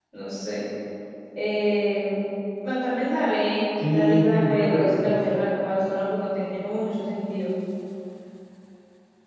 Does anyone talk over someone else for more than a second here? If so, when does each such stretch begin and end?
3.9-5.2

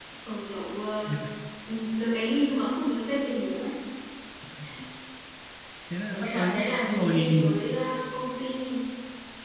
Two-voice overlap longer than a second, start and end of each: 6.1-7.5

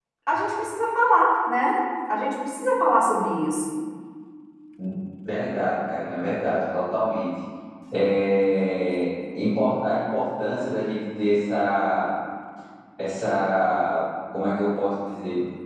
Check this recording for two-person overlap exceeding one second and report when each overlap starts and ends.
none

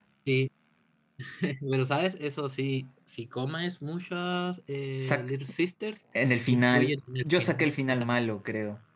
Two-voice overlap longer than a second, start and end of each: 6.5-8.1

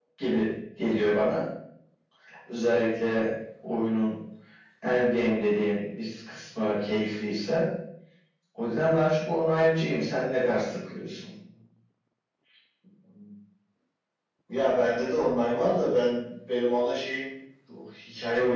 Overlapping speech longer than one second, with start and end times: none

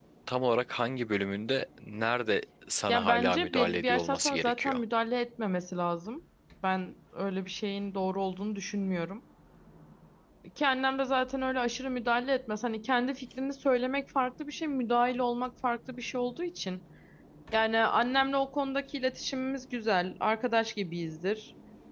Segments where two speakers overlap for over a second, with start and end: 2.9-4.8

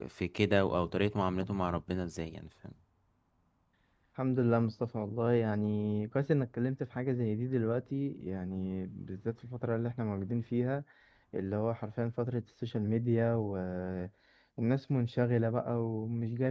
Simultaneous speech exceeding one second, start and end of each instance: none

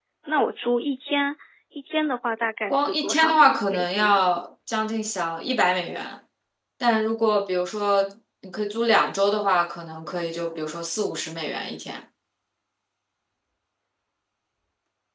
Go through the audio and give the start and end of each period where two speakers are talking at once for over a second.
2.7-4.2

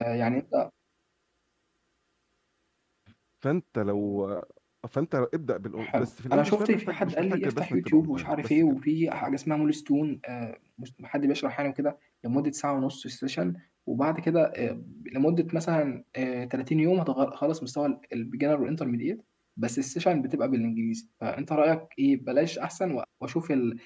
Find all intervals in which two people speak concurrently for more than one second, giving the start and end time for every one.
5.8-8.8

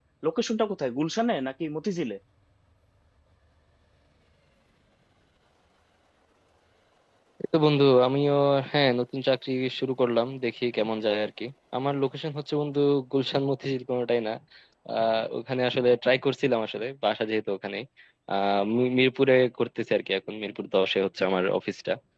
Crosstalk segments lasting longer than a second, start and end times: none

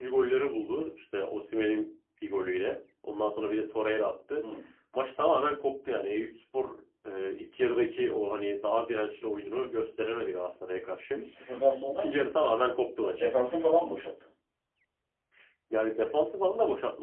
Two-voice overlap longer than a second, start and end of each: none

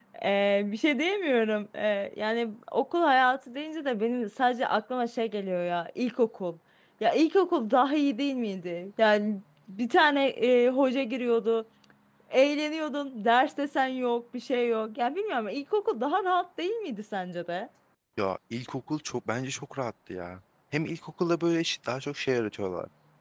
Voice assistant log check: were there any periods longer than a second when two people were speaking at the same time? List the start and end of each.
none

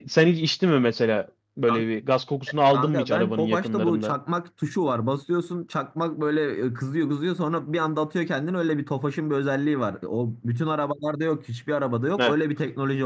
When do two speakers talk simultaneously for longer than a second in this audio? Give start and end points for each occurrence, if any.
2.7-4.1

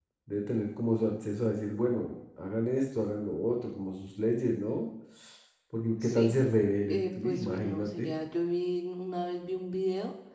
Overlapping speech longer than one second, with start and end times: 6.9-8.1

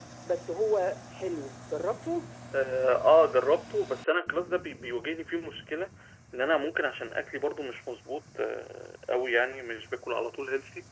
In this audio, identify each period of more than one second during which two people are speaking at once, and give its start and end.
none

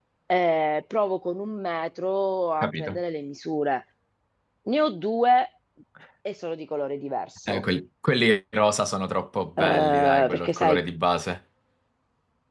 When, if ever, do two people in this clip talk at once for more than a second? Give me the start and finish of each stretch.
9.6-10.8

